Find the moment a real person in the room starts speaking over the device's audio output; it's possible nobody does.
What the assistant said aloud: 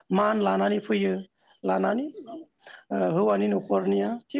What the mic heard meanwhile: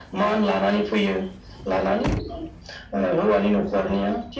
none

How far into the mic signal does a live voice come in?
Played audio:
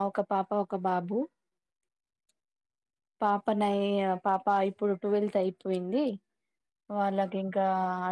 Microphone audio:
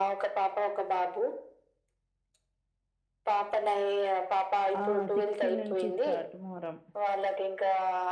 4.8 s

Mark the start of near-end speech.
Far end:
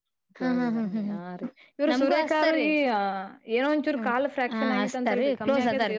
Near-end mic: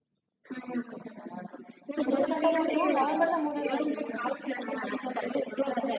2.1 s

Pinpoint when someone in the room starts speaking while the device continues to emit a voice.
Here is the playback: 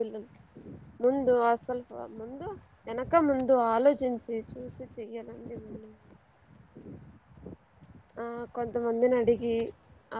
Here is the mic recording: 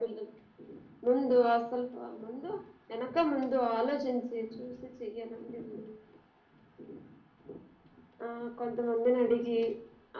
none

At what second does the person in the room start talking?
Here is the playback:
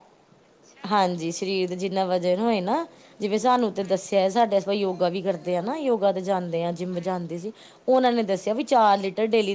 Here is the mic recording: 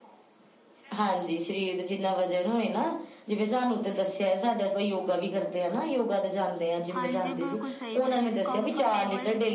7.0 s

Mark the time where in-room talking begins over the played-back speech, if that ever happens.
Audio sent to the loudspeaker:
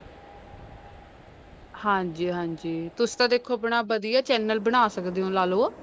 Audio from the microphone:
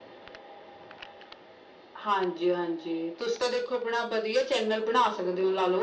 none

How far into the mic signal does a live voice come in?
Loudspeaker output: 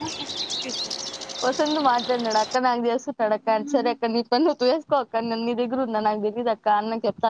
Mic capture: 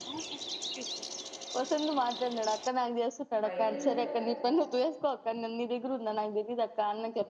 3.5 s

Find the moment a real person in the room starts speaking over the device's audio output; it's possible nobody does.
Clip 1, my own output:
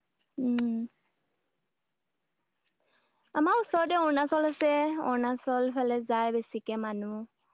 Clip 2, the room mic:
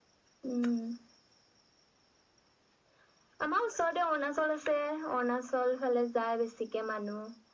none

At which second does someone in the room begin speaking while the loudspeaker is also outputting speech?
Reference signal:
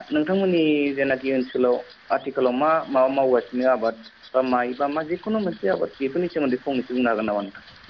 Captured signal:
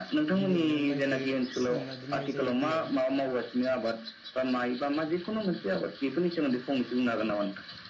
0.4 s

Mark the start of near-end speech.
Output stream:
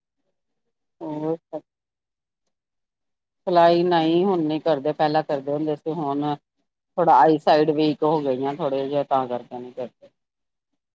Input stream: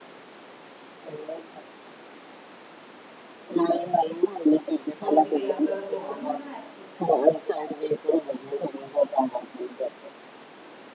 5.0 s

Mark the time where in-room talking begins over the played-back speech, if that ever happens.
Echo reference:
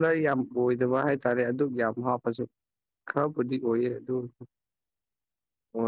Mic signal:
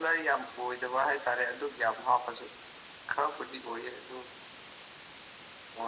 none

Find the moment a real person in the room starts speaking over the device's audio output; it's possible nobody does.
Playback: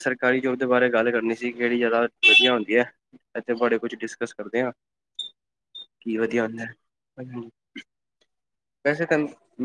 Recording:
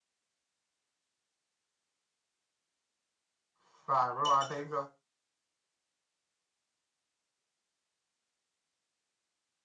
3.7 s

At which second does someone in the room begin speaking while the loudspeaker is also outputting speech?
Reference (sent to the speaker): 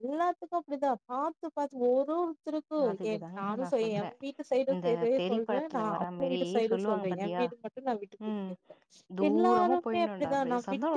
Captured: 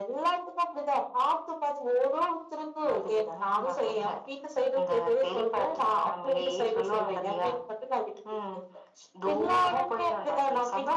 none

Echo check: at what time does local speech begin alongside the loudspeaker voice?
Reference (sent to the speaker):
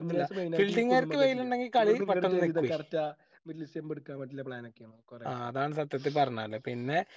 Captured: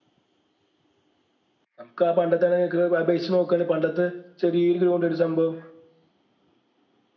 1.8 s

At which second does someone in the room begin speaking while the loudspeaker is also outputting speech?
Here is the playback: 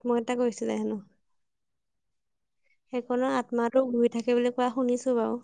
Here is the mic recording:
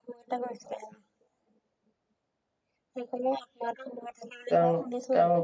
4.5 s

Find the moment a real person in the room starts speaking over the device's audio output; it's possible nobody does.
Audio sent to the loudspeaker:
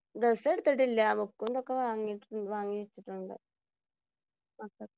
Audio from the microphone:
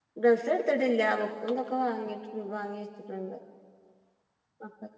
none

